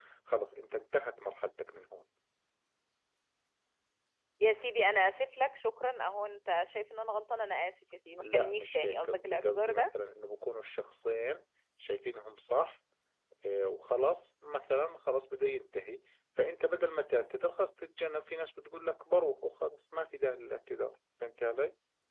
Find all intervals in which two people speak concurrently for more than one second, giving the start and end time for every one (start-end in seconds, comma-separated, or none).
8.2-9.9